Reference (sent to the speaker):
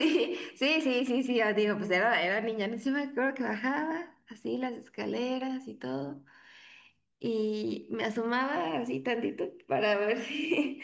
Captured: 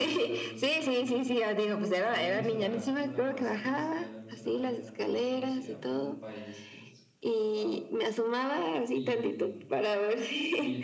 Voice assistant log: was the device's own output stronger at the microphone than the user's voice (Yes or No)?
Yes